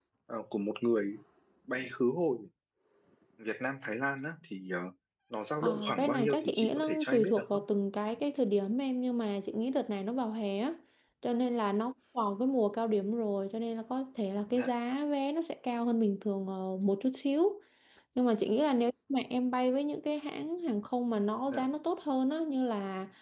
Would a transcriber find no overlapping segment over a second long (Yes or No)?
No